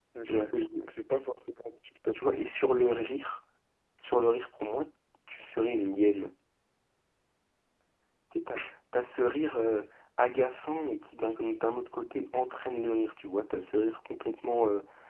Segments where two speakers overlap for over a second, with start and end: none

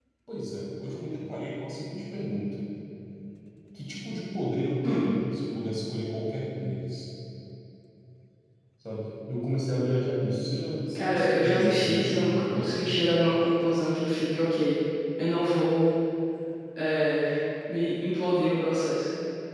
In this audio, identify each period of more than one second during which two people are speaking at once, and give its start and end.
10.9-12.7

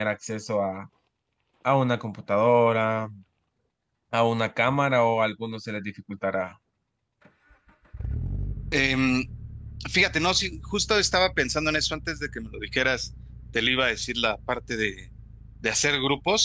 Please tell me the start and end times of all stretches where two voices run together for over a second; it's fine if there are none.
none

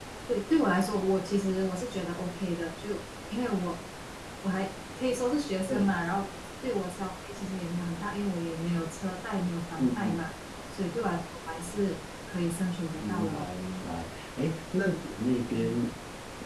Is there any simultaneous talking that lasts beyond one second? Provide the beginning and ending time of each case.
none

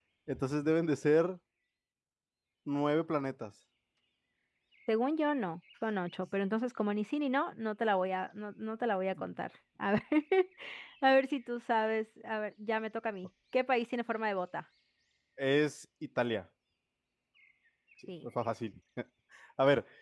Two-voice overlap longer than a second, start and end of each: none

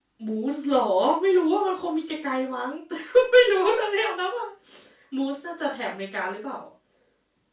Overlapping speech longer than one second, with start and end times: none

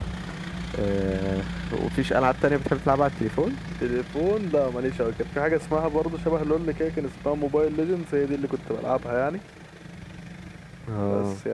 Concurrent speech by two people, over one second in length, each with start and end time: none

